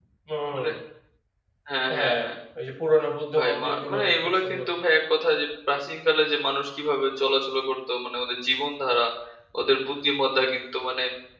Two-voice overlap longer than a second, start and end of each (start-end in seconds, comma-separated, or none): 3.4-4.7